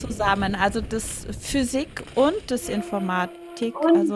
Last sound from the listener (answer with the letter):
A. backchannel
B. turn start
B